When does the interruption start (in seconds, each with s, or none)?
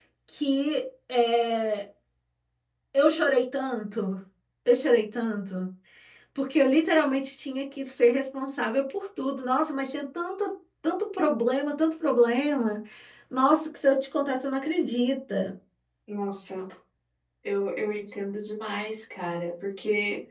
none